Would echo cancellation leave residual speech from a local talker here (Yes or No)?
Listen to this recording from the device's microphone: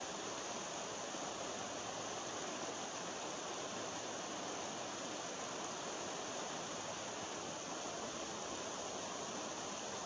No